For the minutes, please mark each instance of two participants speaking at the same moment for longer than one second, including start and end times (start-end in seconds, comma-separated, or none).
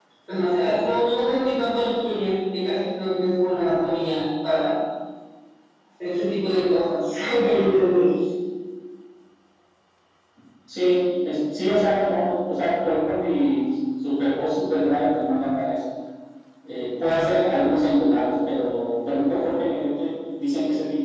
none